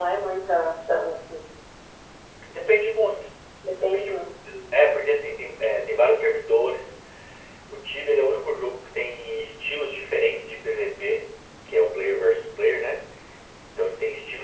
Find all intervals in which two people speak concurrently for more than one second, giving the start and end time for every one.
3.8-5.1

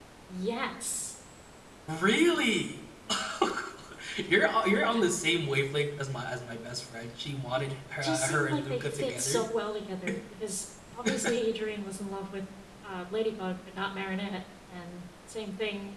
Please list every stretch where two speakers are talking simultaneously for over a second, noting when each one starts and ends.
8.0-9.4

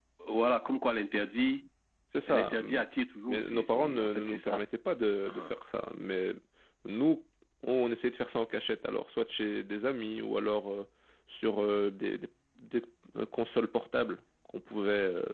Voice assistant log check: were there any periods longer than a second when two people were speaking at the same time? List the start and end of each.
3.3-4.6

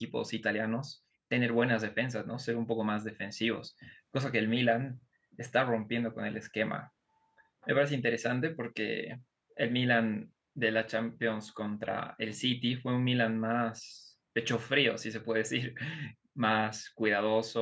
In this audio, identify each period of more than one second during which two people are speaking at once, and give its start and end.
none

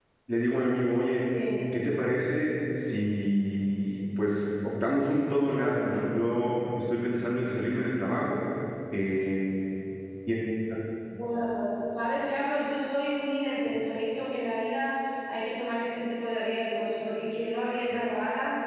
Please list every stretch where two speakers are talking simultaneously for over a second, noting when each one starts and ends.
none

